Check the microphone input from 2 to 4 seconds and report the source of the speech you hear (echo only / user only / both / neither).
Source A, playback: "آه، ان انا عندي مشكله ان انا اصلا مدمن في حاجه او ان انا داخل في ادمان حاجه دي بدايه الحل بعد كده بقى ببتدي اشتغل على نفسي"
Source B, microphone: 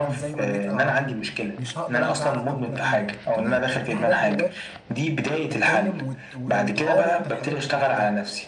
both